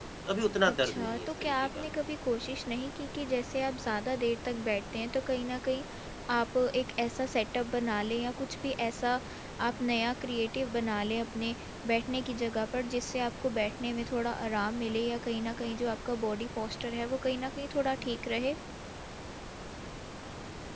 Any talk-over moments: Yes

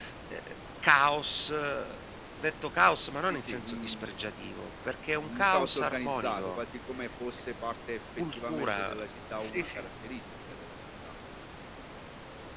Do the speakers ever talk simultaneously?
Yes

